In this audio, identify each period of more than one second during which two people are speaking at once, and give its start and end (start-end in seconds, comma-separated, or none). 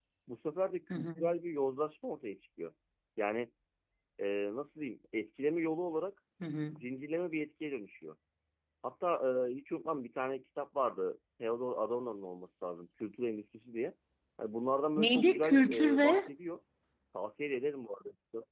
15.0-16.2